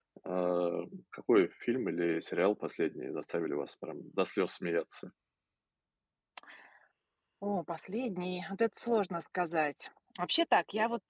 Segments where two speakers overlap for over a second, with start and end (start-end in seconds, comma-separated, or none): none